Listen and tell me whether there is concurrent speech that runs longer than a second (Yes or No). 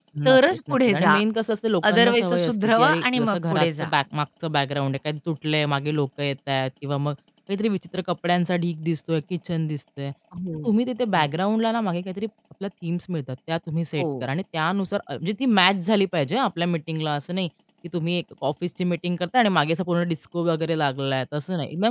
Yes